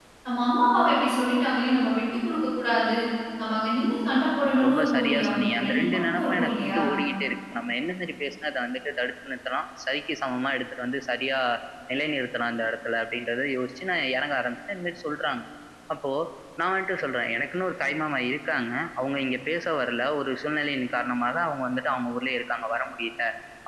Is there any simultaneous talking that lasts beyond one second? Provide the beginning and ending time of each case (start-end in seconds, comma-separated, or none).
4.4-6.8